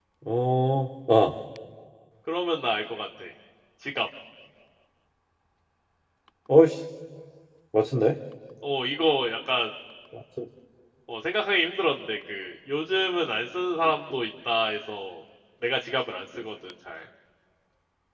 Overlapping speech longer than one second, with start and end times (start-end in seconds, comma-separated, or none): none